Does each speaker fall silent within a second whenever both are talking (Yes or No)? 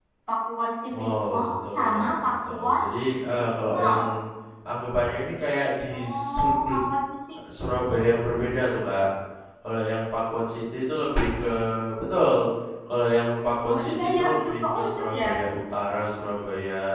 No